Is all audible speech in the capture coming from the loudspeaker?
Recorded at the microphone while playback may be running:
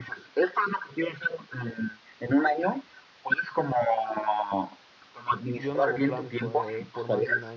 No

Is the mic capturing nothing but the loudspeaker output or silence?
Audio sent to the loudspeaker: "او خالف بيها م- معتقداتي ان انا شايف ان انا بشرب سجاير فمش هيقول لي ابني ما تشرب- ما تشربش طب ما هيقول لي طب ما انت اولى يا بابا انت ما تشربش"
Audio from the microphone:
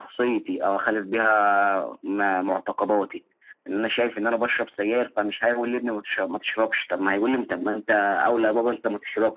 Yes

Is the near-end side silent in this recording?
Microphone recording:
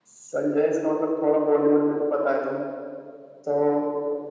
Yes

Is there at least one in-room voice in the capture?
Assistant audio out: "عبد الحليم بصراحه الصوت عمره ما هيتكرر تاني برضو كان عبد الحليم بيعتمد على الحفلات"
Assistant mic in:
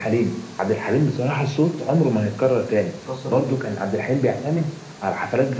Yes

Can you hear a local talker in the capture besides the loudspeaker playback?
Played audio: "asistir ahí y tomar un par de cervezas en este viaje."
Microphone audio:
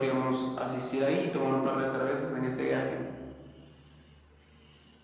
No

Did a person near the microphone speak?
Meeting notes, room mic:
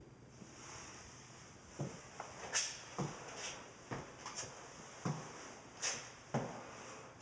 No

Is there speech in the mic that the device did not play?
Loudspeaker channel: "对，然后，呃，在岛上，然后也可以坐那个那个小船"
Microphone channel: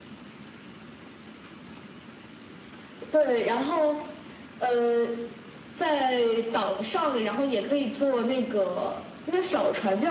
No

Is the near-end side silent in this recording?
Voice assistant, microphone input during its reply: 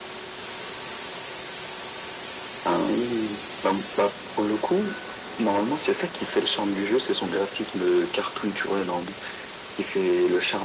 Yes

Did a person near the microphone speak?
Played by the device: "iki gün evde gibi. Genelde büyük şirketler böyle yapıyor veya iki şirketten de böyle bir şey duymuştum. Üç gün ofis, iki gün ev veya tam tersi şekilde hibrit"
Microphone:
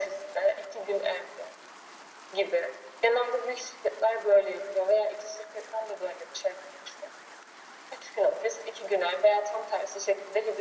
No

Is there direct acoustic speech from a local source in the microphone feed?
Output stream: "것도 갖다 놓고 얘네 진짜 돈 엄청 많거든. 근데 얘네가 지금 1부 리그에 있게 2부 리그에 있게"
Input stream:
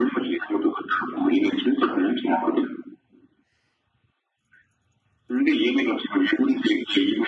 No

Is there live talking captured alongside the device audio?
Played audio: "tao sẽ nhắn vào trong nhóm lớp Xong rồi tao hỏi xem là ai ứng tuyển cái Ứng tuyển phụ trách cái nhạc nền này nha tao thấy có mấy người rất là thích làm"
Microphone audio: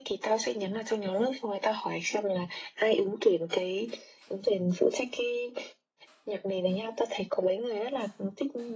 No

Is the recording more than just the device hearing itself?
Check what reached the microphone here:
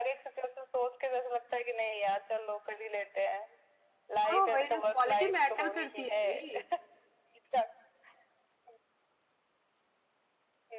Yes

